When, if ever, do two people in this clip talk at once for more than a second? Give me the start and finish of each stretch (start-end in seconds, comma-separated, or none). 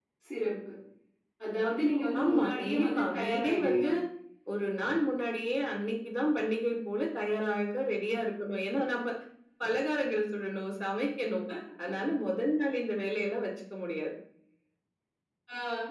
2.2-3.8